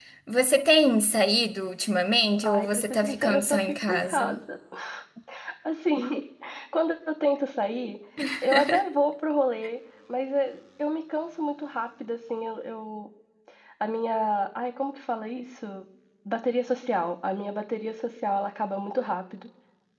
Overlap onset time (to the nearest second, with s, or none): 2 s